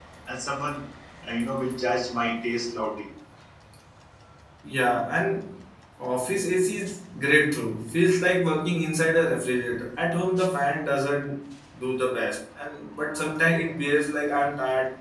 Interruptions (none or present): none